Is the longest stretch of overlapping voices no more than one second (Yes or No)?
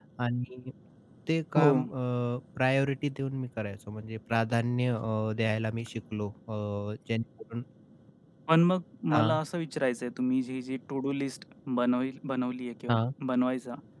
Yes